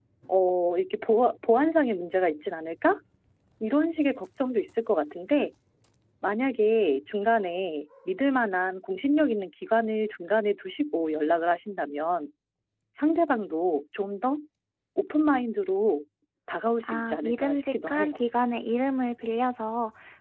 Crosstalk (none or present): present